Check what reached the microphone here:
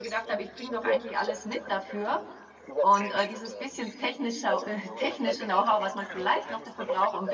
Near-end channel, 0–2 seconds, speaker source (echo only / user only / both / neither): both